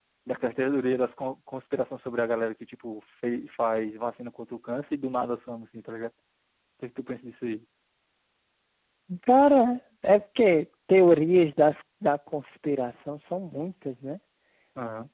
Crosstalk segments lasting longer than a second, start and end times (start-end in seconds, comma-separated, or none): none